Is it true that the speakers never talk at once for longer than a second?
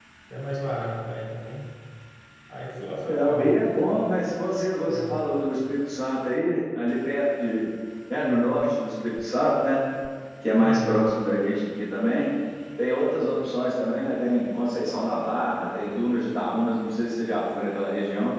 Yes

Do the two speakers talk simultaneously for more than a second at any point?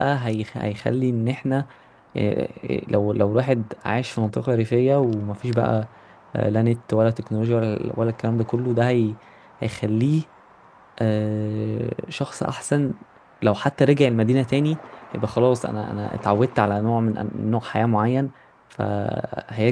No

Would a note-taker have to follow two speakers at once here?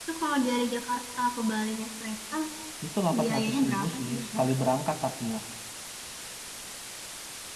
Yes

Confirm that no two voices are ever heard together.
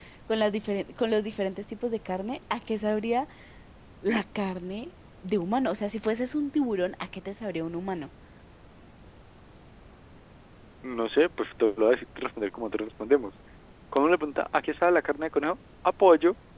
Yes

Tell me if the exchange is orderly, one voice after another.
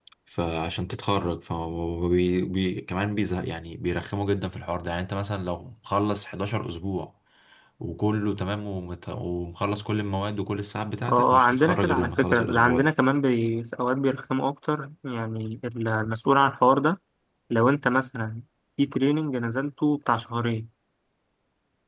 No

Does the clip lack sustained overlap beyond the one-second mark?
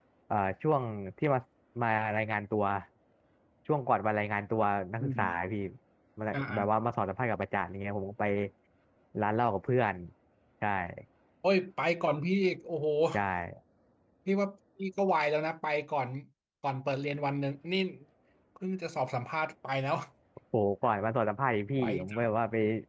Yes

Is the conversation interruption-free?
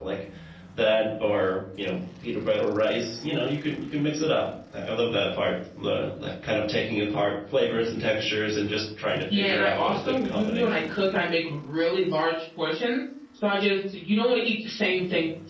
No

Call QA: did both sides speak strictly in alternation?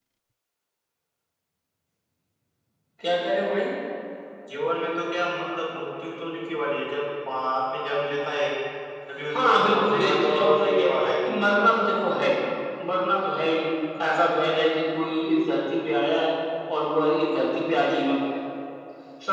No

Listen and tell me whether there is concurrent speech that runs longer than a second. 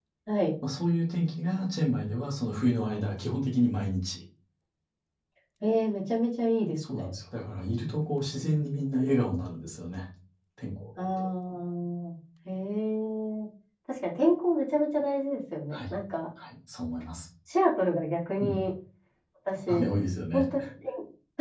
No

